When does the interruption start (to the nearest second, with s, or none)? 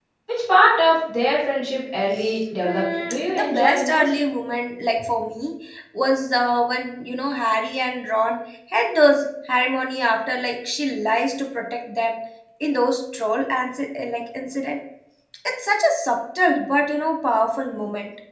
3 s